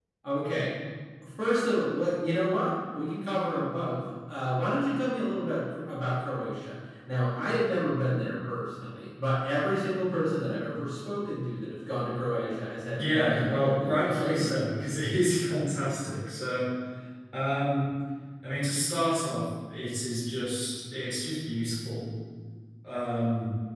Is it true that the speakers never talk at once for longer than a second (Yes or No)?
No